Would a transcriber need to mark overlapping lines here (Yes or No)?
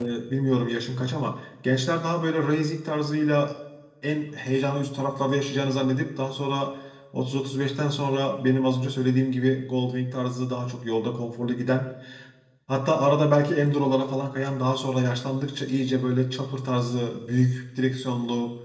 No